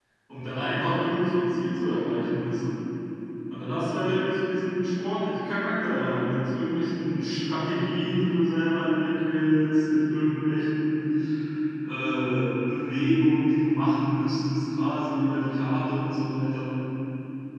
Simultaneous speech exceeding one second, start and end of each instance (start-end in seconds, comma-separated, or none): none